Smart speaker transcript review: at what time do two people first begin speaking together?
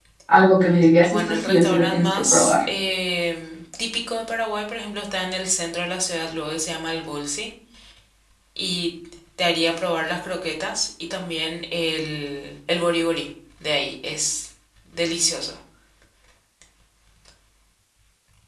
1.0 s

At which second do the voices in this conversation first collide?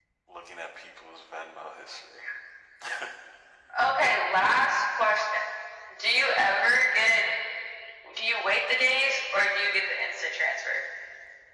none

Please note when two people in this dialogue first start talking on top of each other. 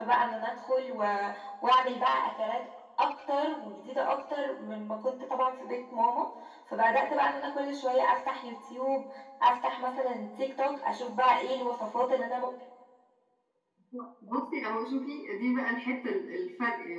none

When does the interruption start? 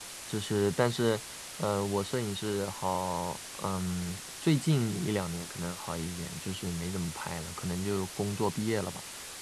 none

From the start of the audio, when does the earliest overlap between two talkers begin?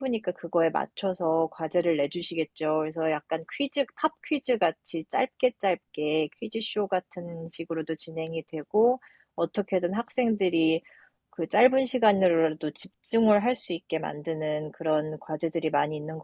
none

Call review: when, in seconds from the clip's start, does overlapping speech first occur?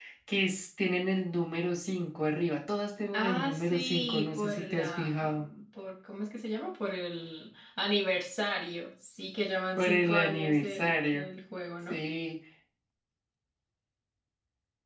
3.1 s

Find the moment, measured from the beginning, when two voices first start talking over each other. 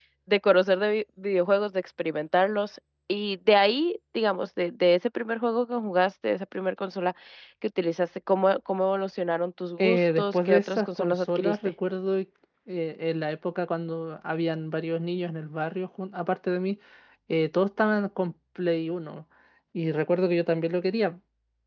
9.8 s

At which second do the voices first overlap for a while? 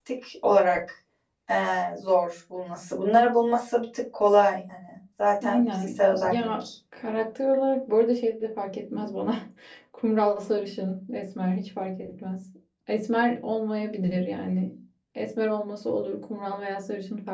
5.4 s

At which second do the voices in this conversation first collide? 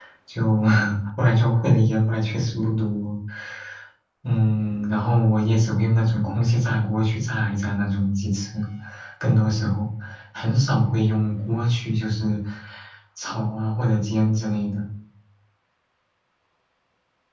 none

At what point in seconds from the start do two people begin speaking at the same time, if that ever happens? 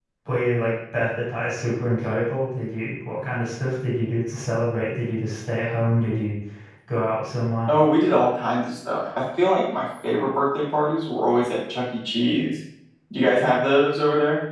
none

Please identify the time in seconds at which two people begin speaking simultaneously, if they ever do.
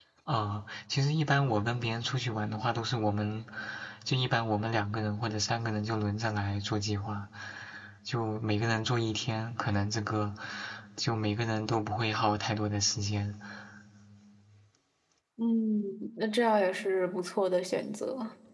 none

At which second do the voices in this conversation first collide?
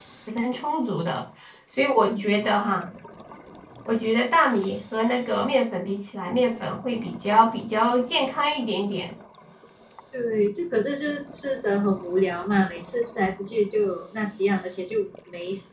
none

